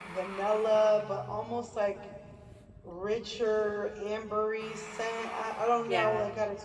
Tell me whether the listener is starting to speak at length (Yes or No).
No